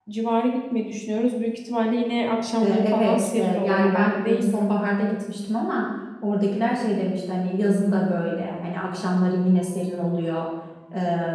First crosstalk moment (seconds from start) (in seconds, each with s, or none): 2.6 s